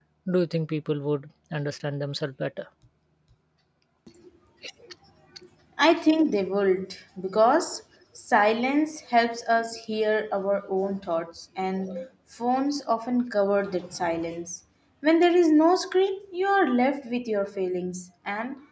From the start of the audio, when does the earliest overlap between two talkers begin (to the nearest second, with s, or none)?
none